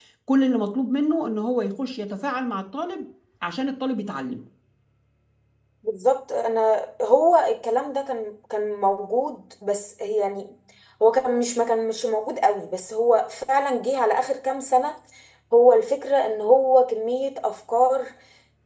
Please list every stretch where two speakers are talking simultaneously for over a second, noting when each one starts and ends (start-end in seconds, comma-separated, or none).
none